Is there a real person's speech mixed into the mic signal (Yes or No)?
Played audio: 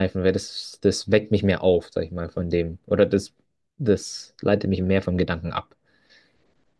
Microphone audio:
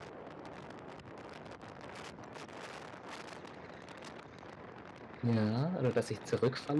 Yes